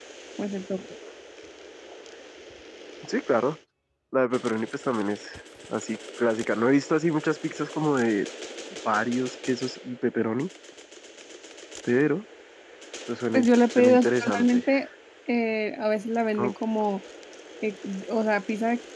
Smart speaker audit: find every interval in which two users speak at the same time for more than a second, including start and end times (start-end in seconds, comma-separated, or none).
13.3-14.6